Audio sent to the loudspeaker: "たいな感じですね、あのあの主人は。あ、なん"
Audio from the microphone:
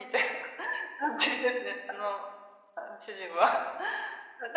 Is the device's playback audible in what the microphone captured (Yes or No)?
Yes